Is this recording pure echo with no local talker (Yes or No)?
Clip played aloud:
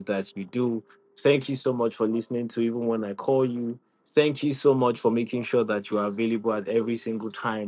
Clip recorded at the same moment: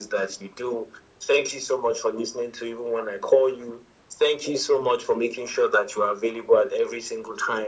Yes